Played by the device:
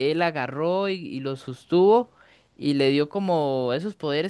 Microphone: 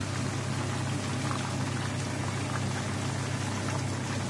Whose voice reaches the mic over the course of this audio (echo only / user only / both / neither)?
neither